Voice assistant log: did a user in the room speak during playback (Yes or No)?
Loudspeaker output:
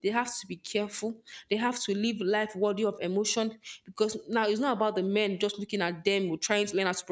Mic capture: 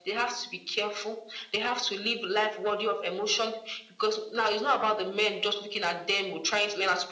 No